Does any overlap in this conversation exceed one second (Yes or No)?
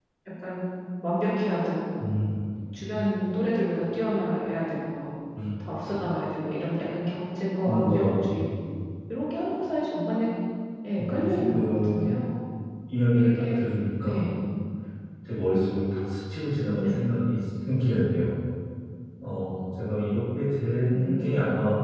Yes